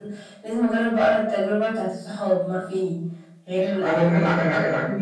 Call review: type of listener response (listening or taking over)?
taking over